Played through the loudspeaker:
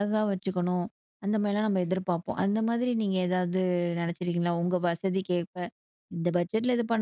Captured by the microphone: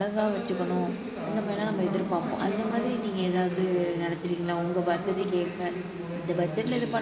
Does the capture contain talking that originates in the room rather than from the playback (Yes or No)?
Yes